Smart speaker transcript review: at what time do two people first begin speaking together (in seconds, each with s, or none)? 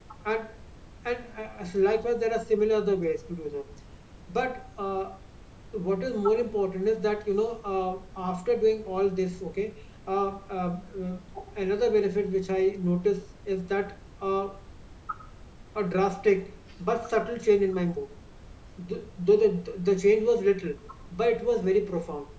none